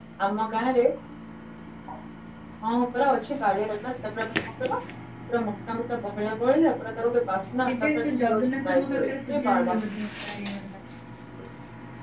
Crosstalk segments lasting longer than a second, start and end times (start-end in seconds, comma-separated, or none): 7.7-9.9